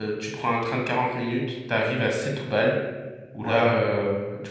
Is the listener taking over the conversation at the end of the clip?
No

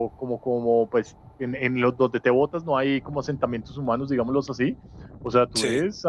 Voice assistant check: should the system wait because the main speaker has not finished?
Yes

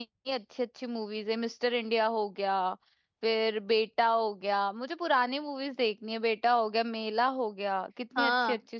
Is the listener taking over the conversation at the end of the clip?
Yes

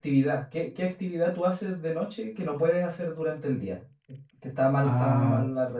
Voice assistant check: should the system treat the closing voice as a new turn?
No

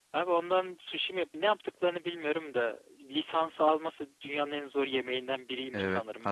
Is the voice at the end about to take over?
Yes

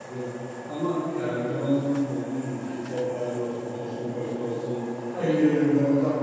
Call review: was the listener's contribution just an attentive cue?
Yes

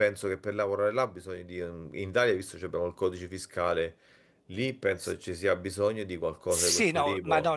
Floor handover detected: Yes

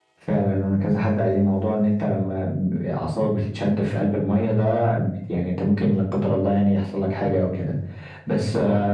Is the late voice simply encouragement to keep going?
Yes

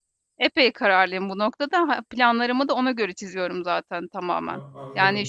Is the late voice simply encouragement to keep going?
Yes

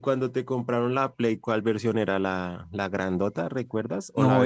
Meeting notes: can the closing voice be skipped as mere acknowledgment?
No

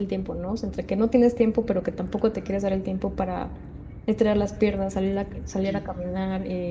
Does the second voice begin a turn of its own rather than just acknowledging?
No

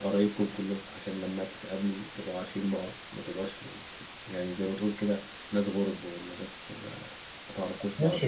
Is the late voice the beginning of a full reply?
Yes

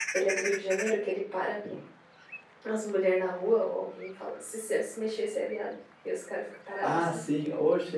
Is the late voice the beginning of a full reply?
Yes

